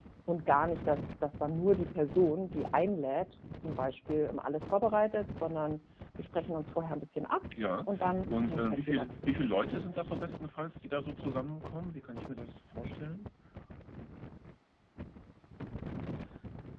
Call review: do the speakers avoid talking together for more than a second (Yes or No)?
No